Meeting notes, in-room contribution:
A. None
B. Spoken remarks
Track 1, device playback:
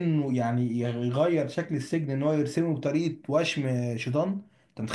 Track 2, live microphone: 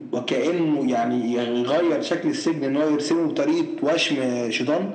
A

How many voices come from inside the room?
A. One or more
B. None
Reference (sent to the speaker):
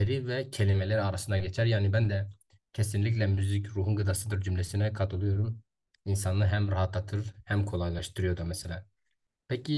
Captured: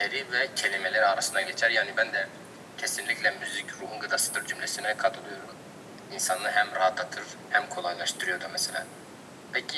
B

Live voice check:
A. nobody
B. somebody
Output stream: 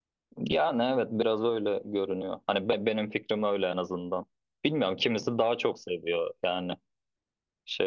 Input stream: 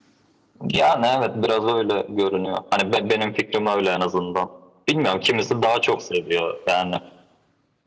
A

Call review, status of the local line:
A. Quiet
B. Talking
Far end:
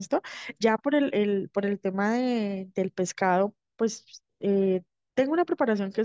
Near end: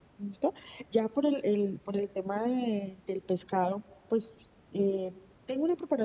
A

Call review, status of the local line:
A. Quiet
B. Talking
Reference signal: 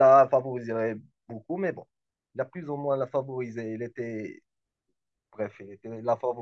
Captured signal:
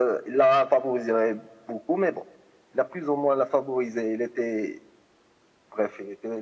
A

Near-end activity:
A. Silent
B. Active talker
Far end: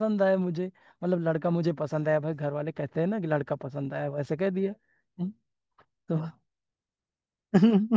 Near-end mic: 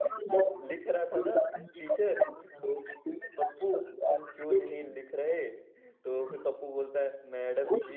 B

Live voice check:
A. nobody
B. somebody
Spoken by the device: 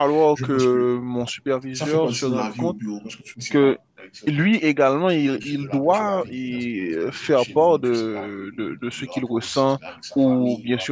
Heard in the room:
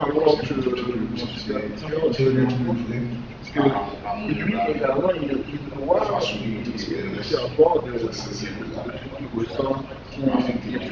B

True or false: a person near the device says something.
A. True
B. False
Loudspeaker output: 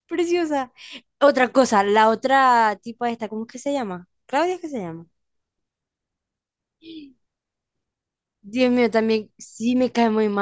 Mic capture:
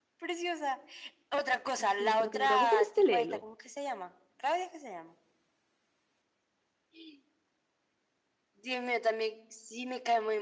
A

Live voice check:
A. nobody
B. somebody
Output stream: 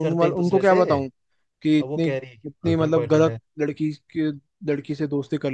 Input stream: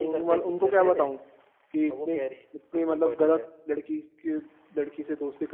A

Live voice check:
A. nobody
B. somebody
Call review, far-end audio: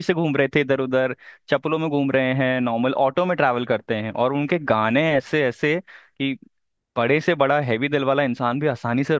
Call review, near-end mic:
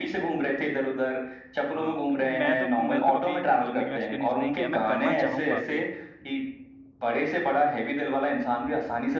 B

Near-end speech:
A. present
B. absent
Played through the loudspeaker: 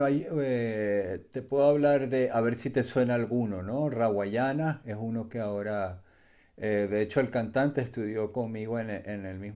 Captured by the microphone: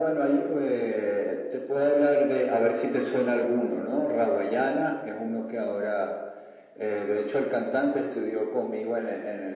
B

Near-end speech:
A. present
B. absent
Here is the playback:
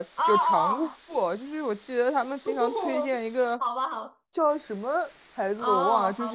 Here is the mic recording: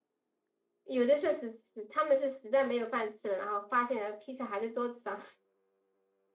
A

